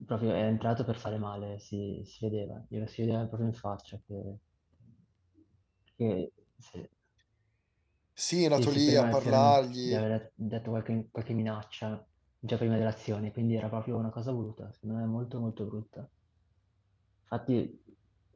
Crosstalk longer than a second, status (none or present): present